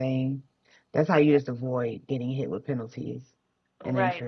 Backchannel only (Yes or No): No